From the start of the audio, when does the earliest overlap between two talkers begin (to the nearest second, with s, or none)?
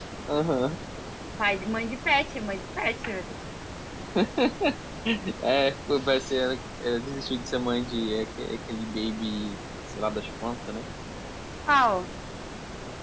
none